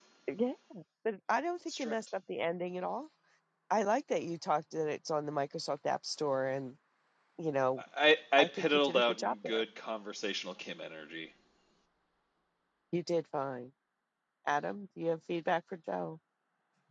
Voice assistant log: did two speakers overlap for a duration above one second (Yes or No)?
Yes